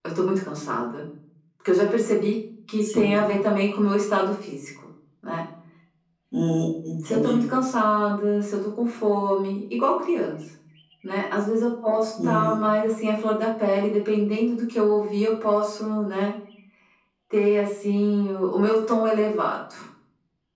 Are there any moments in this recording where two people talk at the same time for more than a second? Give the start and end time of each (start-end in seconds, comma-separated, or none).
none